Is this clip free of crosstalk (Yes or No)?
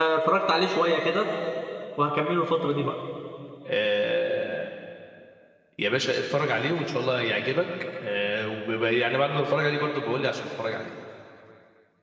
Yes